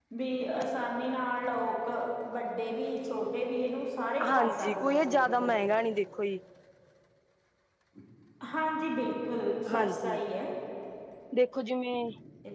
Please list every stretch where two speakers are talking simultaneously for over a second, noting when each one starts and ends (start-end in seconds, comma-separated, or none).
4.3-5.5